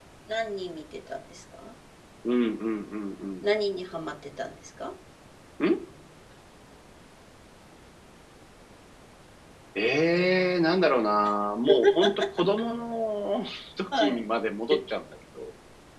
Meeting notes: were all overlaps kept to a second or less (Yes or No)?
Yes